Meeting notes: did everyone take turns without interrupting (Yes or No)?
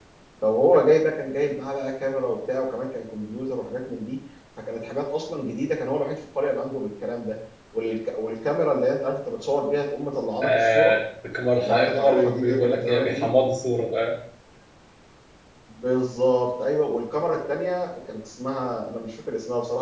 No